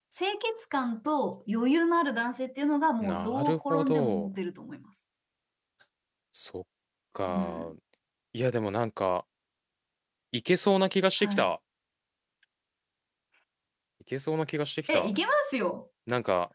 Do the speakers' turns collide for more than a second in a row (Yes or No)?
Yes